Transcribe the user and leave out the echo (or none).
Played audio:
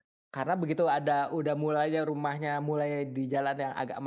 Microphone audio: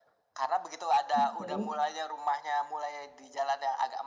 oke.